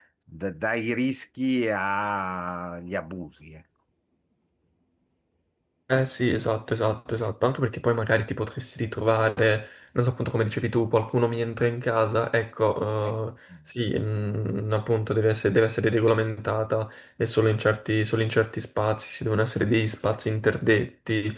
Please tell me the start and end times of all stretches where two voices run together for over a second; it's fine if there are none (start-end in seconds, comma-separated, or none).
none